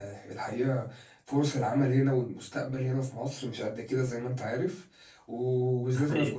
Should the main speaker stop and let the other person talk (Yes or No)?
No